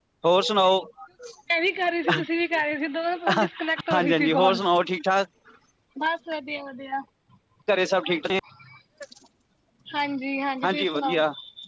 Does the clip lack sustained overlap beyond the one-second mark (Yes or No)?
No